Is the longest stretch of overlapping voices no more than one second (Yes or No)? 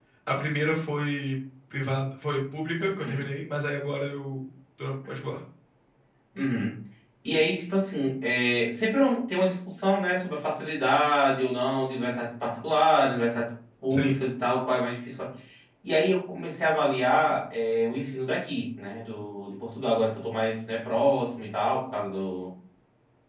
Yes